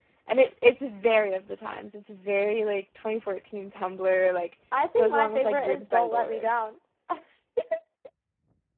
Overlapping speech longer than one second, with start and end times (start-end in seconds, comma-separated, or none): 5.0-6.4